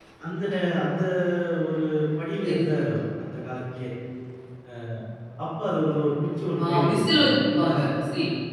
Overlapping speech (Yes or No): Yes